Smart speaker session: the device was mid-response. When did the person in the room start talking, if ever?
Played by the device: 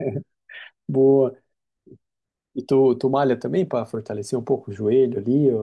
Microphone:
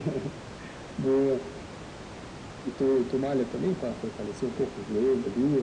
none

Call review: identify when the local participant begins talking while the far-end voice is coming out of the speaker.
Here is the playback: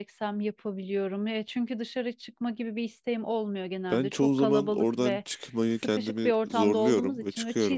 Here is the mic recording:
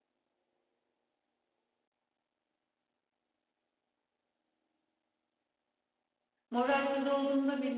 6.5 s

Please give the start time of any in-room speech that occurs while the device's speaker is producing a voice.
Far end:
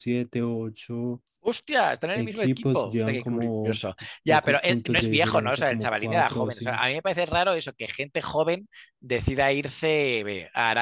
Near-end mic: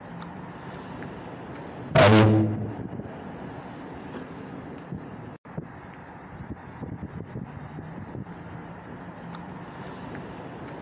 1.9 s

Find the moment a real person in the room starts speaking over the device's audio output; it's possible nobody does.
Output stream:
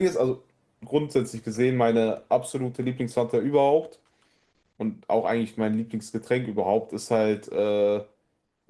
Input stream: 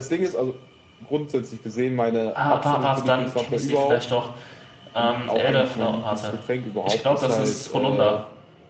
2.3 s

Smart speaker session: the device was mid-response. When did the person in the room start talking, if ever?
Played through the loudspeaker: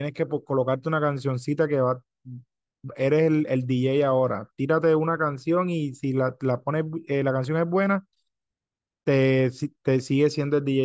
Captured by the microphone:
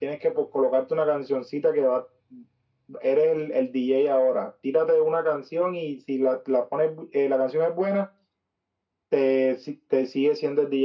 none

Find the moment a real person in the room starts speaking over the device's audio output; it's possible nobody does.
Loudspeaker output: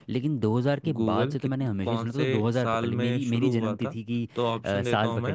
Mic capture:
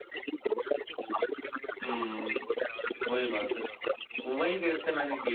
1.9 s

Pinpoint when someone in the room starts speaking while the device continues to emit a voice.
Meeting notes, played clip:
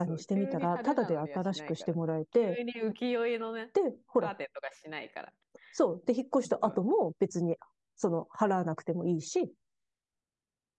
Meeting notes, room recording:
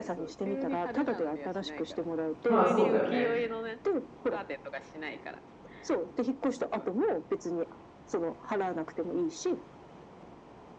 2.5 s

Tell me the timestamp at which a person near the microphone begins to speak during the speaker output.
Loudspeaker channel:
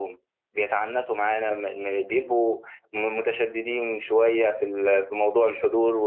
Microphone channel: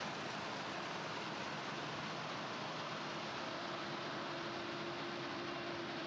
none

